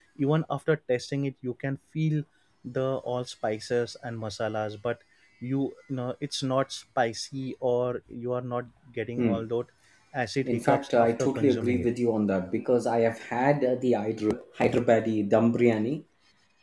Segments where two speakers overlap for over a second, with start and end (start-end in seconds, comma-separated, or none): 10.4-11.9